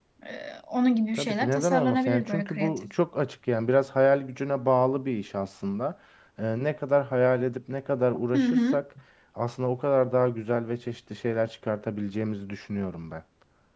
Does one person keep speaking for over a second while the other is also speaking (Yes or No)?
Yes